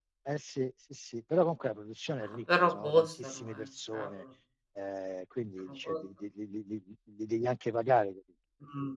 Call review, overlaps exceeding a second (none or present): present